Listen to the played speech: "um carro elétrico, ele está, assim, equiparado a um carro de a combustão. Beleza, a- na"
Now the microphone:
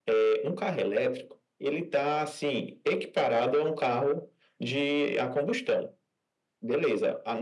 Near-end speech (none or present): none